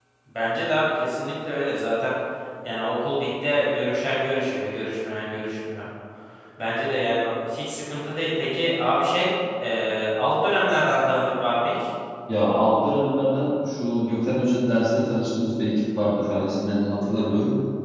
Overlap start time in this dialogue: none

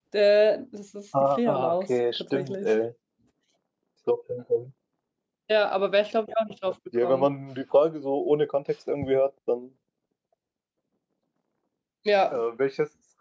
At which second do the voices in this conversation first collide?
1.4 s

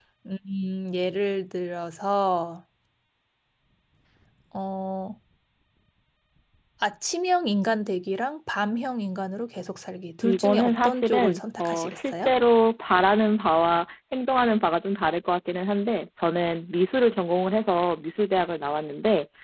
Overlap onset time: 10.2 s

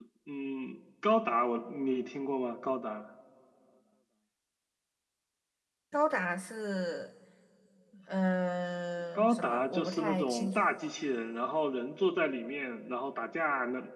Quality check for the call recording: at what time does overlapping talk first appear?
9.2 s

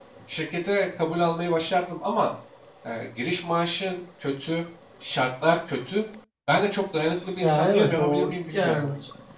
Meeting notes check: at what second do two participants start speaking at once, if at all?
7.4 s

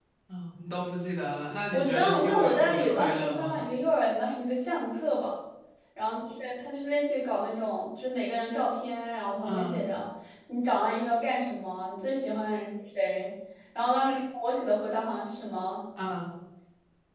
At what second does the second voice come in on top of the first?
1.7 s

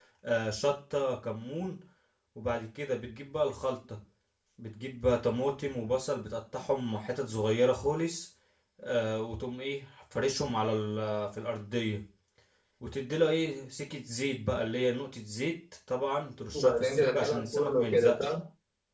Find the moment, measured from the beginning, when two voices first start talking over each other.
16.5 s

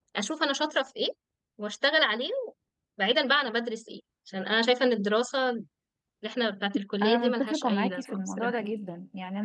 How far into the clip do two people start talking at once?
7.0 s

